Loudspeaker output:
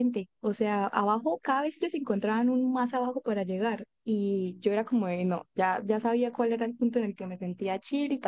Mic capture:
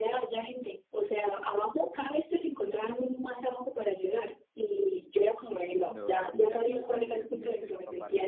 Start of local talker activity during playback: 5.8 s

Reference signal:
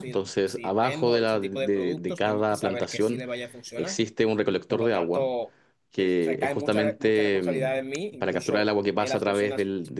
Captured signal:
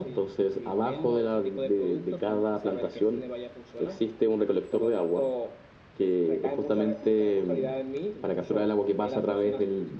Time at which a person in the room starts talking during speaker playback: none

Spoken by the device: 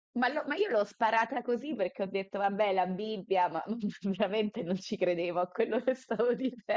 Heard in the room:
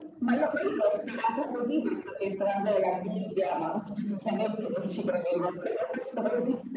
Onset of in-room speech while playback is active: none

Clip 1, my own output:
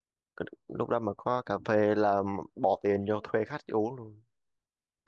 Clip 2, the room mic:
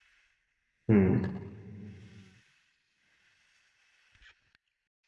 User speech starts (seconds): 0.9 s

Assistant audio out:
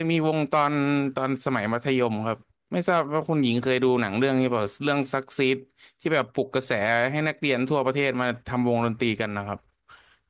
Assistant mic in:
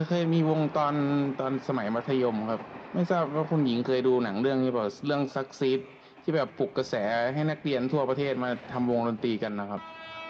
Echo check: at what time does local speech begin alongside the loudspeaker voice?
none

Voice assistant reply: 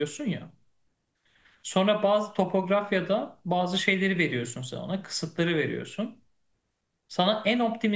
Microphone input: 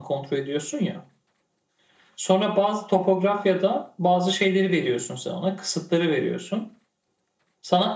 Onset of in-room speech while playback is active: none

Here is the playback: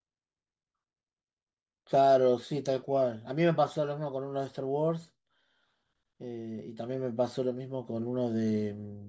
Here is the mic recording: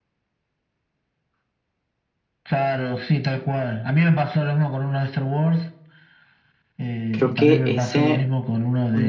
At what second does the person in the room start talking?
7.1 s

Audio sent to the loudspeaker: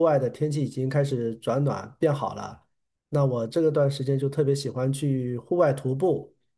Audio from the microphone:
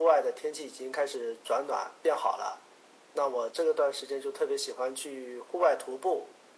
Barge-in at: none

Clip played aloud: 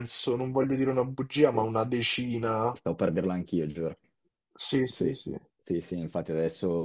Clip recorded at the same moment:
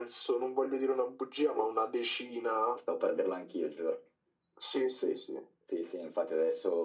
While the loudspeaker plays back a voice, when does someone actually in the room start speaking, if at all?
none

